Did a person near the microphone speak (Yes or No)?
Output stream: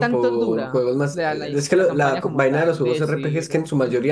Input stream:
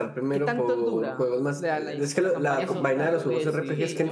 Yes